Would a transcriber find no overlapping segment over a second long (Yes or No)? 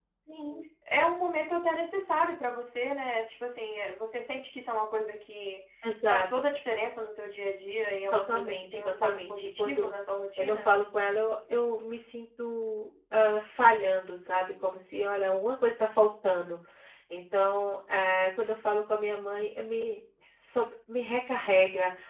No